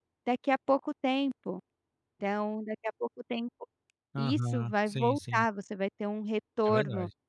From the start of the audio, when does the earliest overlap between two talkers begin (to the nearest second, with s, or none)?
4 s